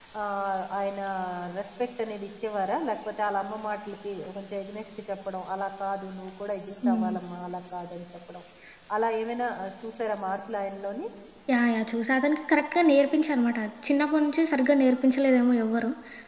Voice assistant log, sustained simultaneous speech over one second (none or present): none